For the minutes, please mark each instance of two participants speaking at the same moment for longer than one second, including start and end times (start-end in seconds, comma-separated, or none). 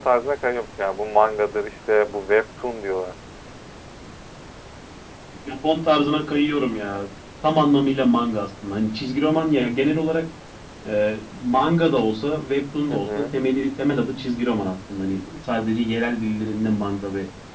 none